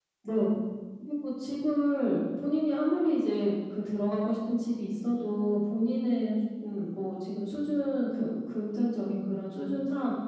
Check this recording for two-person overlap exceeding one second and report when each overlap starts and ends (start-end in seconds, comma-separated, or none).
none